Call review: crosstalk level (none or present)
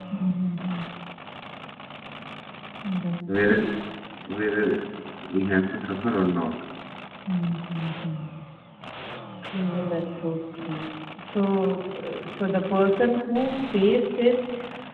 none